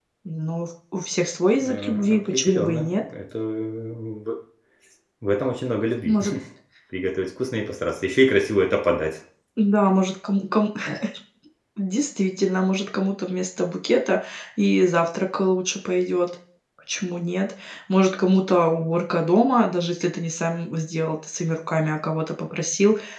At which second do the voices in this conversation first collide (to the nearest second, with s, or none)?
2 s